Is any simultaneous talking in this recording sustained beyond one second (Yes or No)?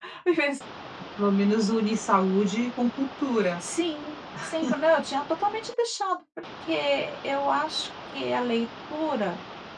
No